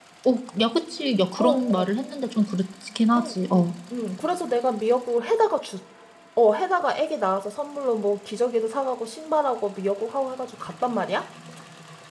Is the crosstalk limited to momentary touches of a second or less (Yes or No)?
Yes